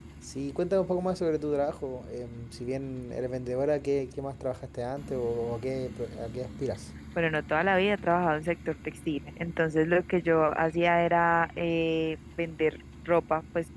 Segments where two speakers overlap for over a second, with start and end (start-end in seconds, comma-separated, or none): none